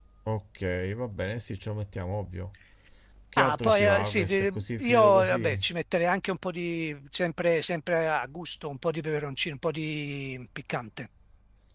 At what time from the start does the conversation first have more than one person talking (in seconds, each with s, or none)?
3.4 s